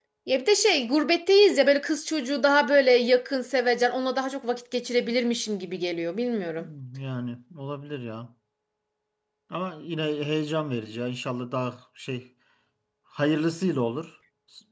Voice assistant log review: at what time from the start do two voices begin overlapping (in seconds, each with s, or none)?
none